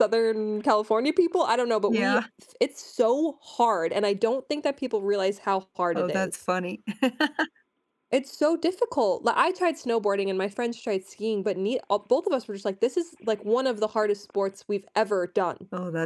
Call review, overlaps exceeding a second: none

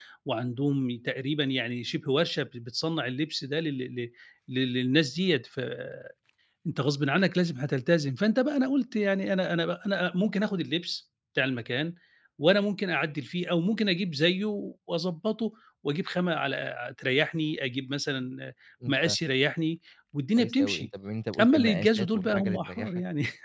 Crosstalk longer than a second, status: present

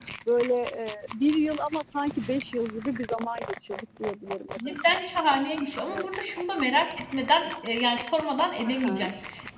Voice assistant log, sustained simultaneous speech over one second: none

